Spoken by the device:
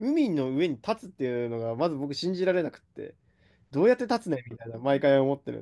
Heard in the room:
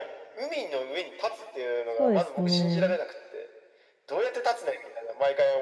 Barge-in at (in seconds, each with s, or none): 2.0 s